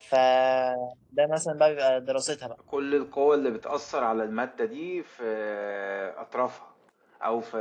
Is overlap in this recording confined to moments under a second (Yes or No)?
Yes